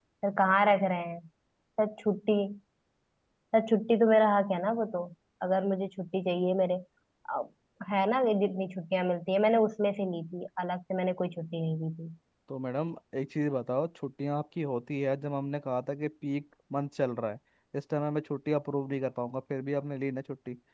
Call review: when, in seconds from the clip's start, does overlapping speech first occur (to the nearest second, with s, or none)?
none